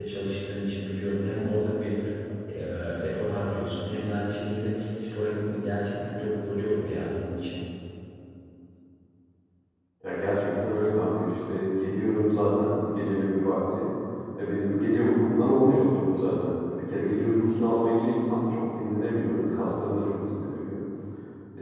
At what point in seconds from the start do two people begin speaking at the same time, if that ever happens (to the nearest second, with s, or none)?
none